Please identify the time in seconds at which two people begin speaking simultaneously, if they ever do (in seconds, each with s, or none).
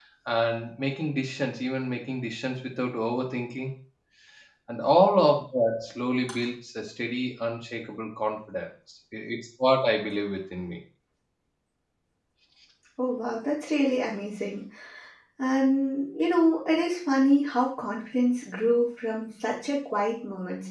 none